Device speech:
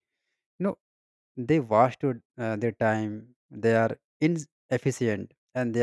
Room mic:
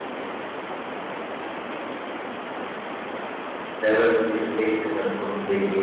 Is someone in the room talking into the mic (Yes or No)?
Yes